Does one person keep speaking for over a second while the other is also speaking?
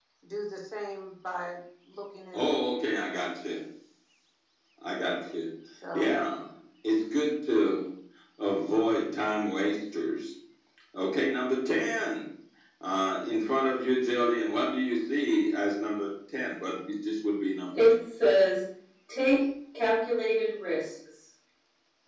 No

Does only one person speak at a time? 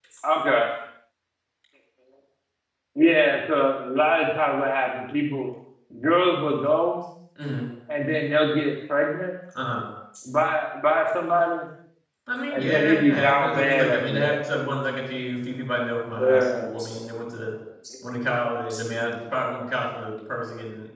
No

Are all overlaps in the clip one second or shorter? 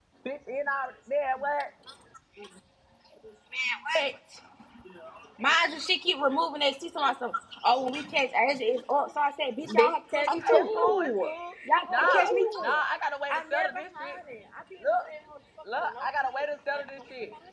No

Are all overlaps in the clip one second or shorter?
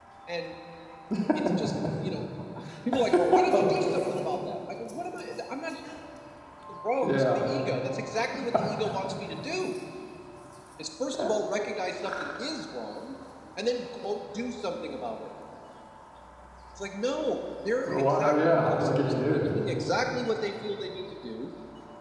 No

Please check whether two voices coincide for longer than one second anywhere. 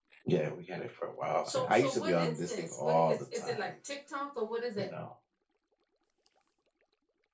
Yes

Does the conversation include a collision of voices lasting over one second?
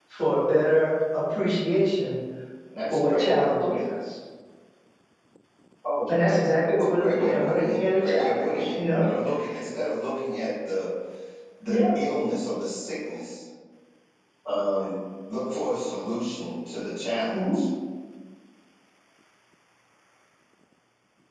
Yes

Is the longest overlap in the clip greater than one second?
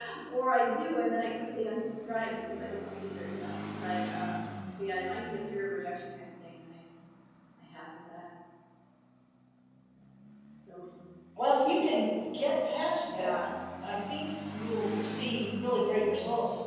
No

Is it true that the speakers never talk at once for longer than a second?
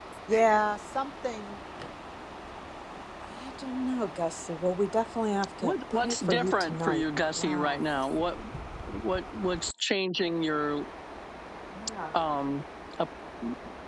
No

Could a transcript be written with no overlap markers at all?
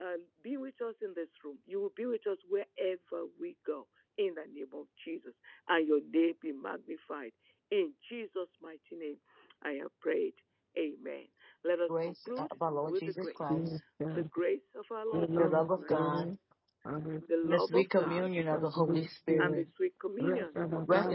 No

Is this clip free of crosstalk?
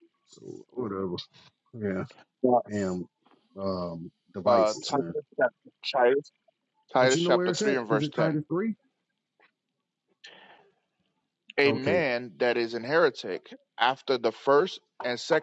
No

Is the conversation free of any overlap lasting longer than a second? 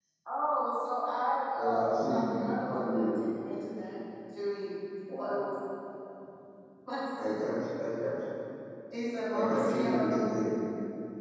No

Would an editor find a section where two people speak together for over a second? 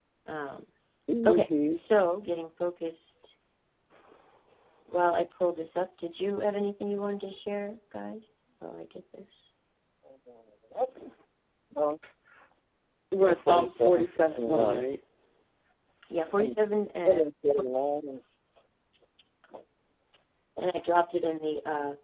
Yes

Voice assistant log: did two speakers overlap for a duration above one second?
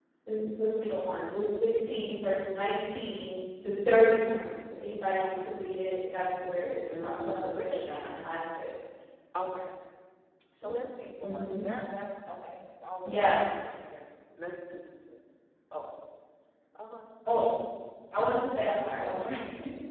Yes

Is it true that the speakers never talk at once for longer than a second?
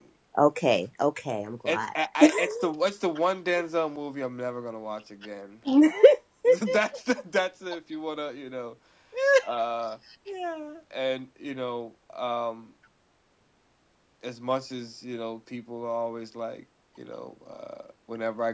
Yes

